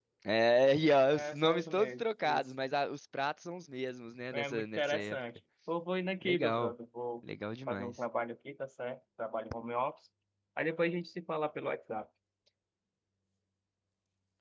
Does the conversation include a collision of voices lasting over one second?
Yes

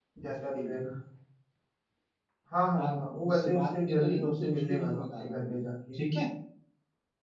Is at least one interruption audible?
Yes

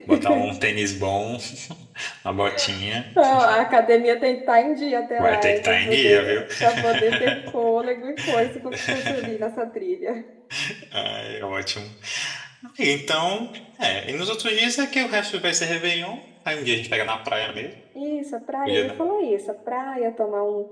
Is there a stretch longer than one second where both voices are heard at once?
Yes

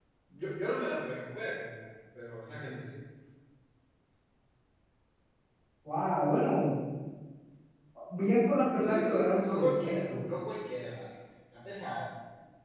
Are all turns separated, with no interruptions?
No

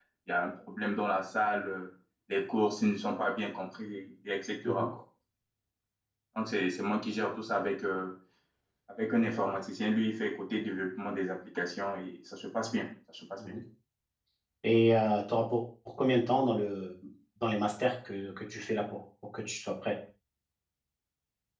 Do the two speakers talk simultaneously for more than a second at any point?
No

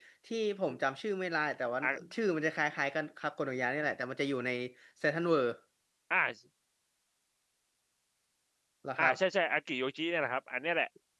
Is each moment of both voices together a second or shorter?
Yes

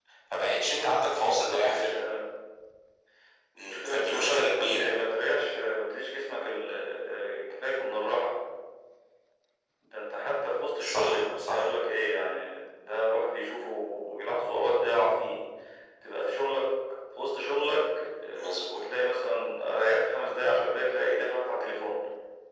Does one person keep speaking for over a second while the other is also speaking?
Yes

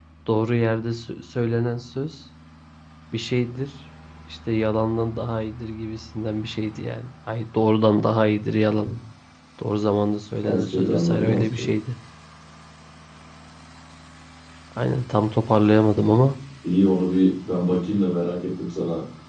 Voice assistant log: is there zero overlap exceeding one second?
No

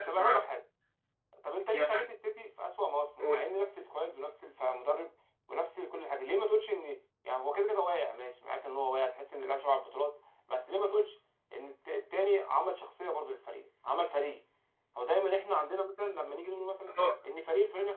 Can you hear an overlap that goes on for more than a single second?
No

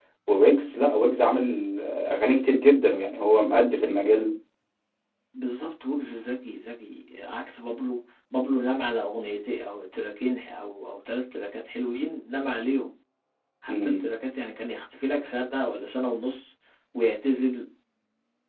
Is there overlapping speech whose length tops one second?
No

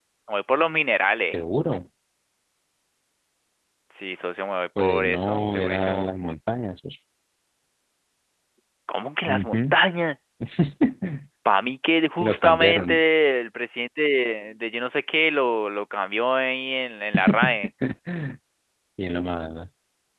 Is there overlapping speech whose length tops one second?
Yes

